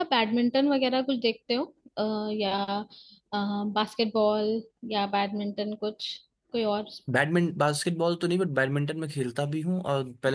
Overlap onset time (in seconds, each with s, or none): none